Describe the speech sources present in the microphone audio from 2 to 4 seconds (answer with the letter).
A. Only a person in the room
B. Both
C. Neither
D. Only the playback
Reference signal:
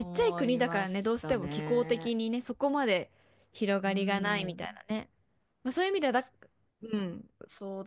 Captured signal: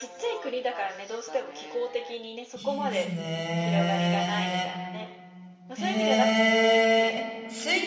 B